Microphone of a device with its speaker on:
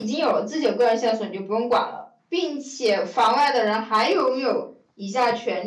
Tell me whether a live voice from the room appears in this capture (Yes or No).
Yes